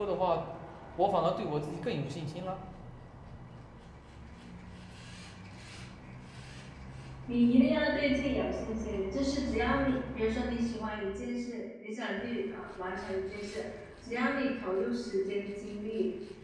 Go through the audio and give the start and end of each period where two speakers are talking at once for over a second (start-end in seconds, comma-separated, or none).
none